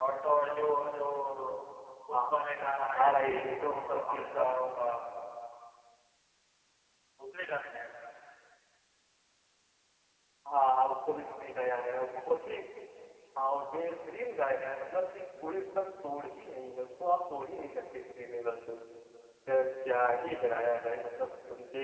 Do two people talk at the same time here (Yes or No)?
Yes